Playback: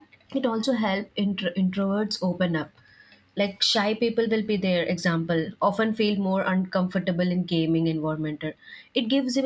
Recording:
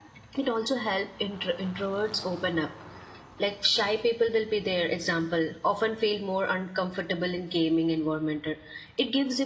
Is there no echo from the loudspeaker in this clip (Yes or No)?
No